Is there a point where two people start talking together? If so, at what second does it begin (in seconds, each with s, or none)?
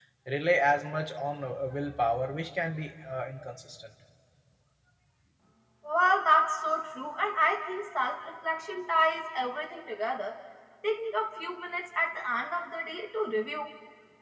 none